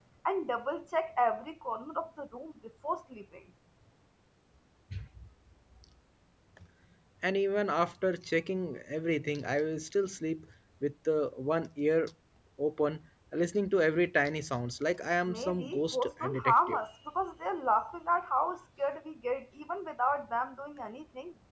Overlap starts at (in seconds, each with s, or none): 15.3 s